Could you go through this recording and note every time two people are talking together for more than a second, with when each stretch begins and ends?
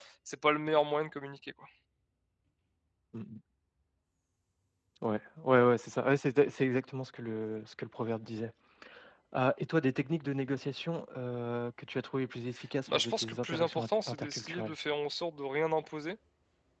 12.9-14.7

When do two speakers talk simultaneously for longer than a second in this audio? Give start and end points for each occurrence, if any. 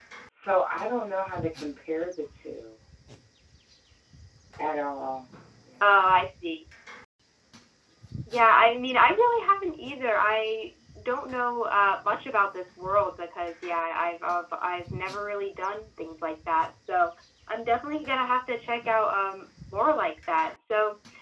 none

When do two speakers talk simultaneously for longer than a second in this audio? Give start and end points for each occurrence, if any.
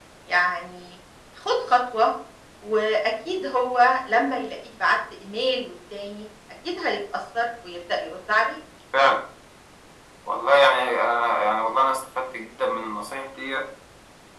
none

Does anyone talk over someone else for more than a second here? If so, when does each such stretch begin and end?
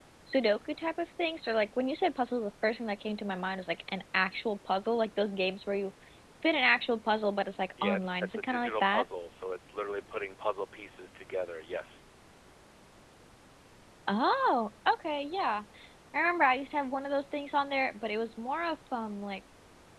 7.8-9.0

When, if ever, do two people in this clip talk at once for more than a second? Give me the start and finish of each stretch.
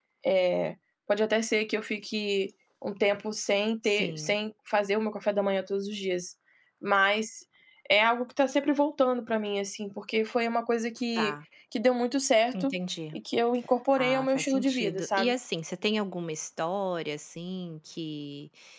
13.9-15.3

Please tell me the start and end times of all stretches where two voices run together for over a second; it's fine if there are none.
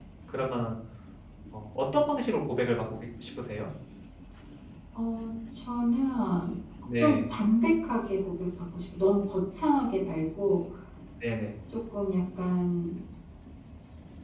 none

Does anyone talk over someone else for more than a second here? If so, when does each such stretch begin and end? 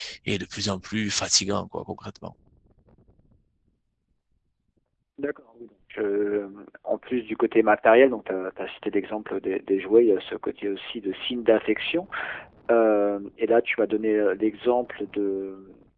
none

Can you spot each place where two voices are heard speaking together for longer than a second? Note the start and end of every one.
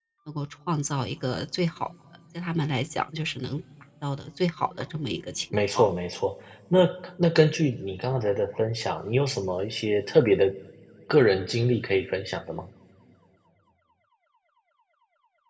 none

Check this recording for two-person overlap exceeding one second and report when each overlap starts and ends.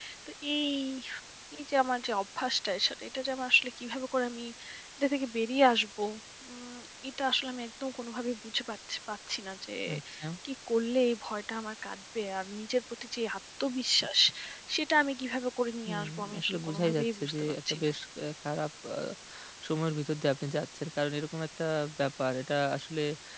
15.9-17.9

